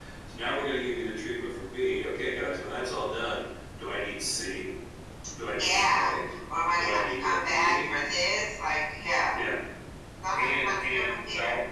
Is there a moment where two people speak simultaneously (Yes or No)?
Yes